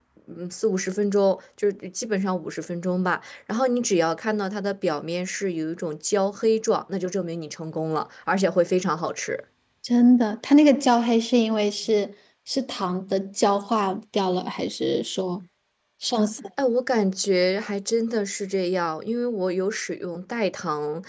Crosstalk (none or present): none